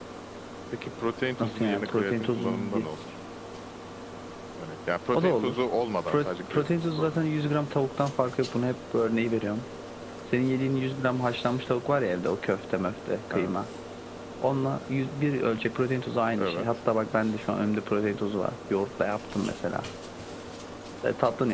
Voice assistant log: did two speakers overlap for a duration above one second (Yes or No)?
Yes